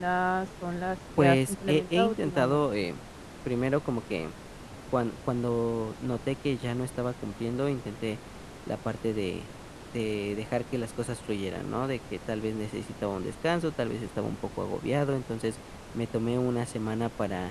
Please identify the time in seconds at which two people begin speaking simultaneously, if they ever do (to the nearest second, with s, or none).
1 s